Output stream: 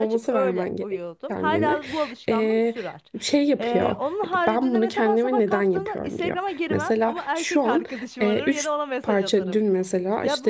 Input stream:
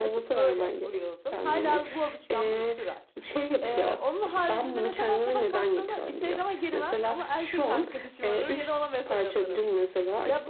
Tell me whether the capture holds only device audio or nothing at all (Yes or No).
Yes